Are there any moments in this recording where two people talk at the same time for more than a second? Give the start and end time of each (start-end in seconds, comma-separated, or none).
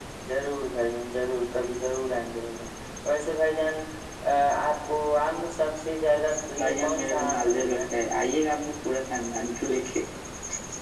6.6-7.8